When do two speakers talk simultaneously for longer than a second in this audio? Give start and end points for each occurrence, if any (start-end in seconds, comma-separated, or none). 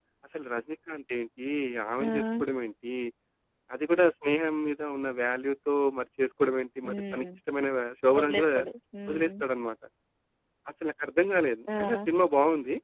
none